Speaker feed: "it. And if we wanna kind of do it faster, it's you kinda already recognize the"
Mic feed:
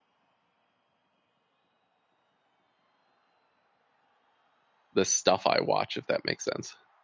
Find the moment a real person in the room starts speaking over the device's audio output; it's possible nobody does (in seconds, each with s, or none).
5.0 s